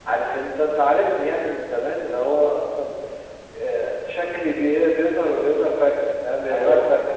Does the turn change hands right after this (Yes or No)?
No